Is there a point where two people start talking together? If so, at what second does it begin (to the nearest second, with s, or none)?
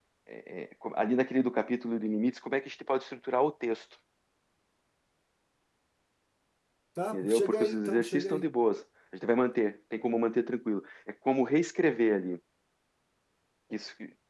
7 s